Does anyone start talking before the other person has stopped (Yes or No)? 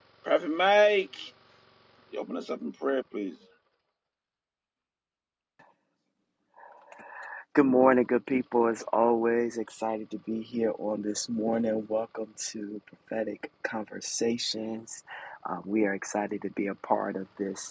No